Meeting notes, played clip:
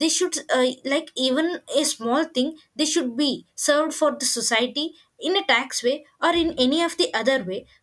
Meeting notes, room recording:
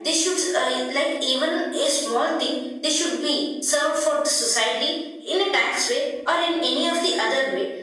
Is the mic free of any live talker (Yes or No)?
Yes